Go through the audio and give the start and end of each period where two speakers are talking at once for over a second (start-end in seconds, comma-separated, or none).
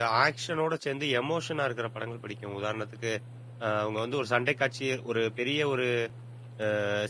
none